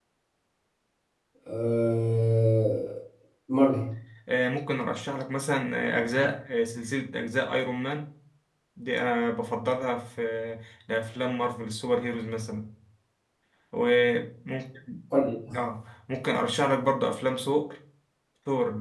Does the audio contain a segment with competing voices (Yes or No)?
No